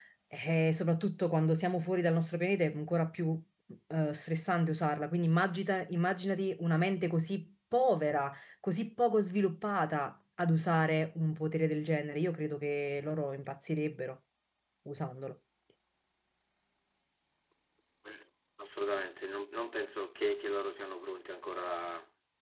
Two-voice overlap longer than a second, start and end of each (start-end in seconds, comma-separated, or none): none